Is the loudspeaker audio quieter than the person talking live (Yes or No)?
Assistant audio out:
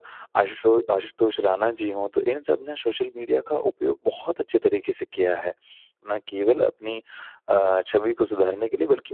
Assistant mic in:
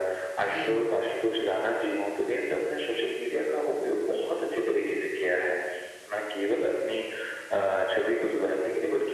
No